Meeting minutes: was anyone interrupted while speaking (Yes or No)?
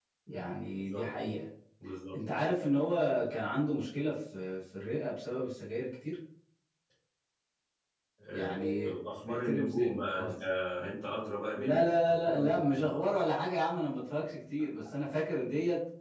Yes